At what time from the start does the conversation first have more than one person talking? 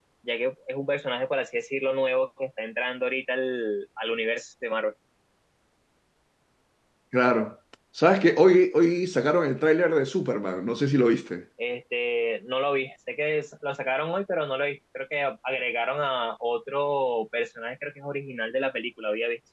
none

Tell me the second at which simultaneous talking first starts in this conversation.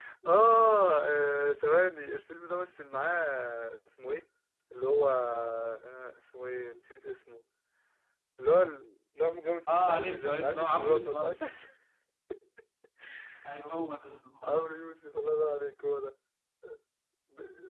9.7 s

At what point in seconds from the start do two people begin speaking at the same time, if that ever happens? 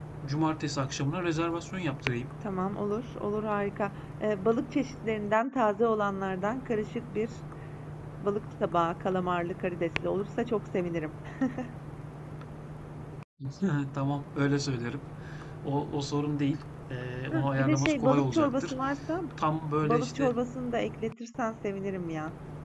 17.3 s

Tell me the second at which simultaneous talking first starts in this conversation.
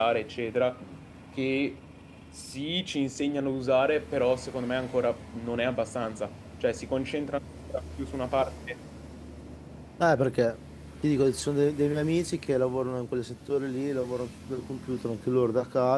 none

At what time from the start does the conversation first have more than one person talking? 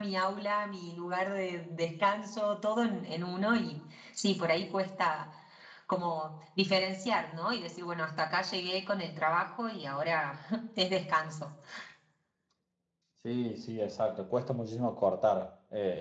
none

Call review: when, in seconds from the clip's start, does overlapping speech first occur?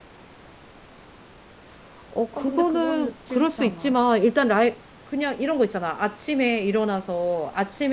2.4 s

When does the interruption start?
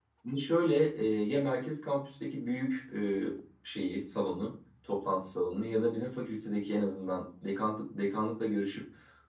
none

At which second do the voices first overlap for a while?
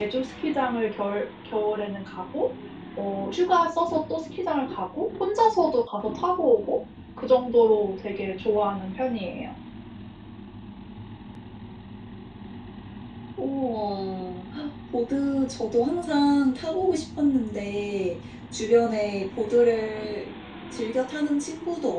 none

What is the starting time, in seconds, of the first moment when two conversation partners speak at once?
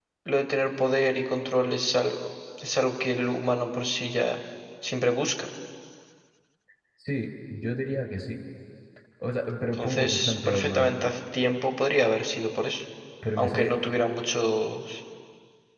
9.7 s

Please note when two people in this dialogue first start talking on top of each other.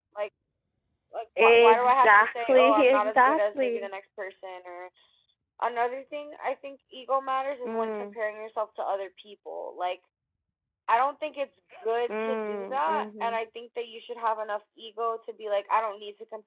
1.4 s

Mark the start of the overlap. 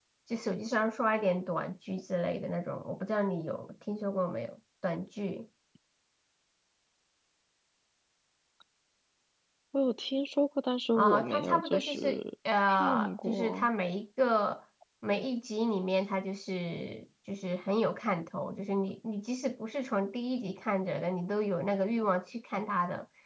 10.9 s

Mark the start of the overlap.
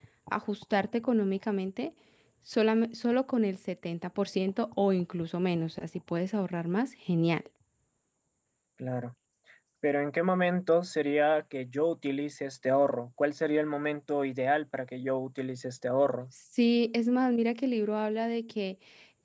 none

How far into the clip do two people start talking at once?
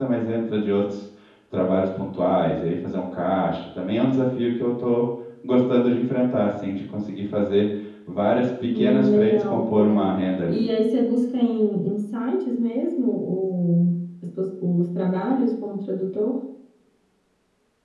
8.7 s

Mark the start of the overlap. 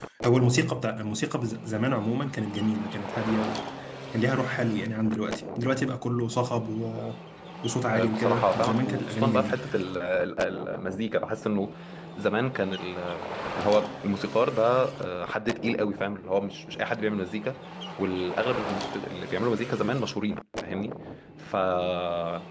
7.9 s

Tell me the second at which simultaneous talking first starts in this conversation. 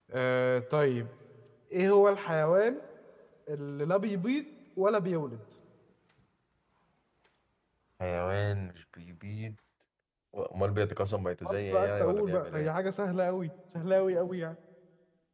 11.4 s

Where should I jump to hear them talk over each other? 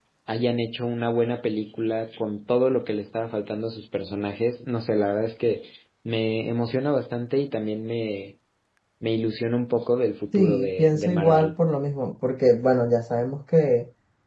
10.3 s

